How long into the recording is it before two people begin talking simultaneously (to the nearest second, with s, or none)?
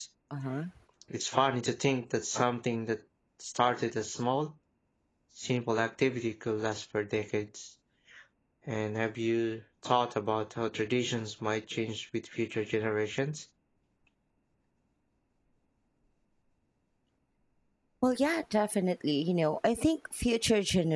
none